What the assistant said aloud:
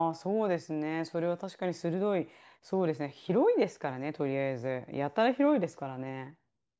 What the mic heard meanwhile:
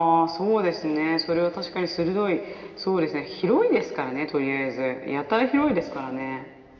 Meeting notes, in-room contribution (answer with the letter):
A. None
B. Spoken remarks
A